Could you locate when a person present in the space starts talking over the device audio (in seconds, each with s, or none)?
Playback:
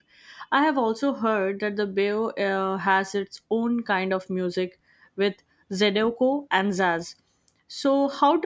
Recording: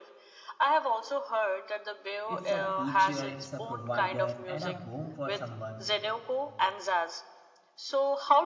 2.2 s